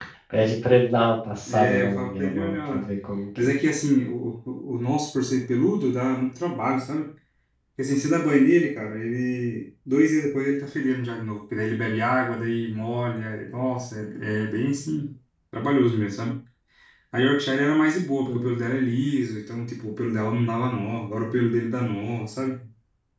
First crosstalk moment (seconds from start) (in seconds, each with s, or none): 1.5 s